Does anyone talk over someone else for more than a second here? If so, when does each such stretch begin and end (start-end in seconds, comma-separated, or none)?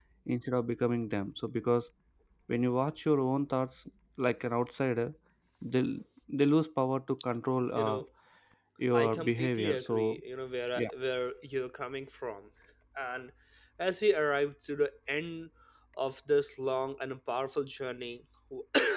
8.9-10.2